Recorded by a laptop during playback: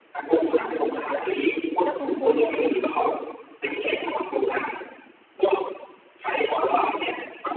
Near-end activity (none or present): present